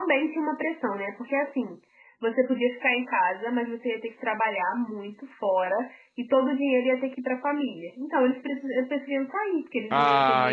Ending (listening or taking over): taking over